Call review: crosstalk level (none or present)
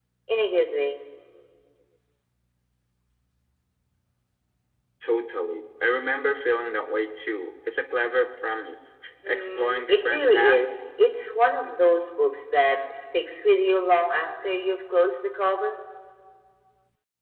present